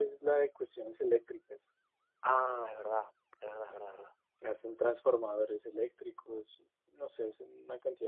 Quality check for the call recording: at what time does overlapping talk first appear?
none

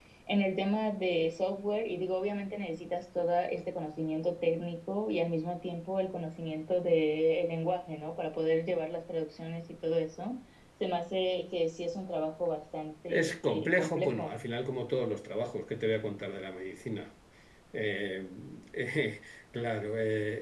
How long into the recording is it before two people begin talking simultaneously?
13.1 s

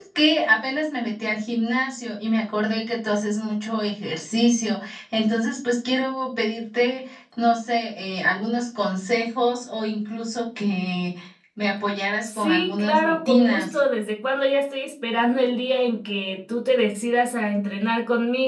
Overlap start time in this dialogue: 12.3 s

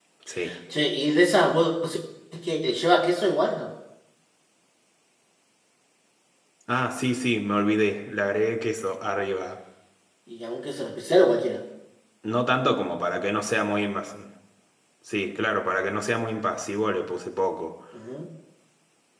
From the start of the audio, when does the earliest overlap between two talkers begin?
none

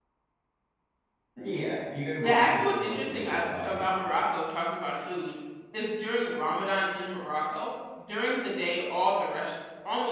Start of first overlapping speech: 2.2 s

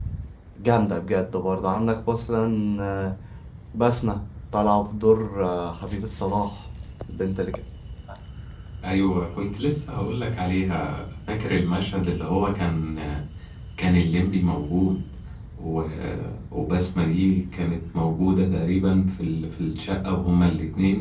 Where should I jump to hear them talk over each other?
none

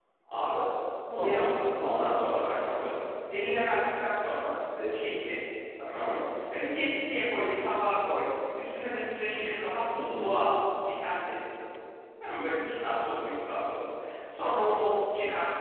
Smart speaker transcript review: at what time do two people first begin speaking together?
1.2 s

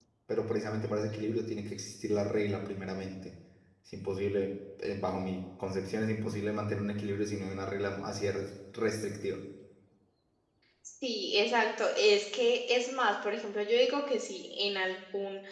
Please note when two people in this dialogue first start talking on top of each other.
none

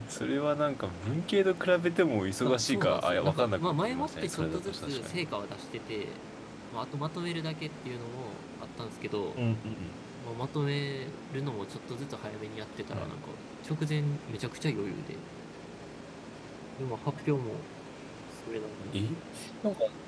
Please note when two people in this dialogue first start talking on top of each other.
2.4 s

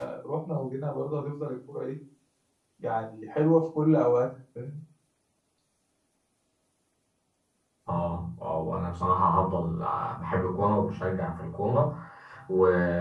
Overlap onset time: none

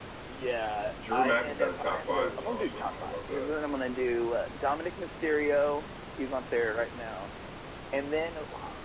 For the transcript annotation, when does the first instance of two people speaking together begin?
1.1 s

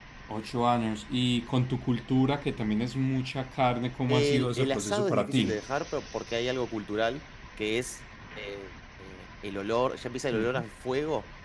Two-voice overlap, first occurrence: 4.1 s

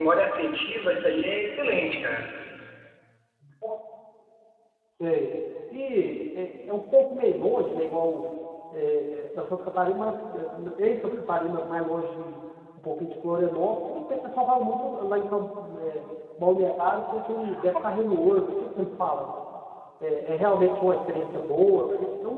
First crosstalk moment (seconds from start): none

